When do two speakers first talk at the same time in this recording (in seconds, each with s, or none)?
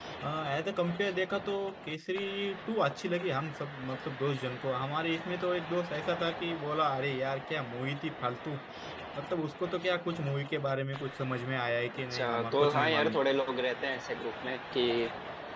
11.9 s